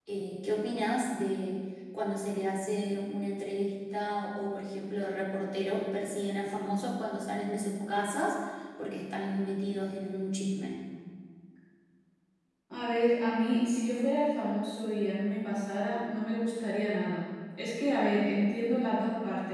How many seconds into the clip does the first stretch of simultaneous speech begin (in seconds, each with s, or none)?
none